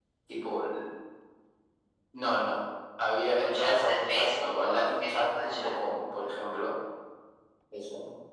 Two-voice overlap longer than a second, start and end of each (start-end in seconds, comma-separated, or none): 3.4-5.8